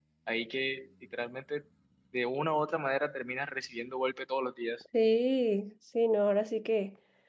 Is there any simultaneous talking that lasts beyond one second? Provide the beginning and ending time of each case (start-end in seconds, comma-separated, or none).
none